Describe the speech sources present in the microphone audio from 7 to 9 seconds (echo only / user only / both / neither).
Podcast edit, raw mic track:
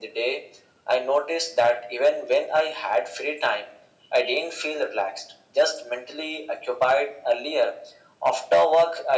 echo only